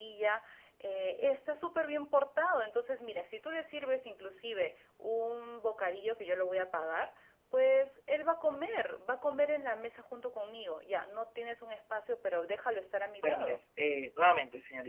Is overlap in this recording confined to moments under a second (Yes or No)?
Yes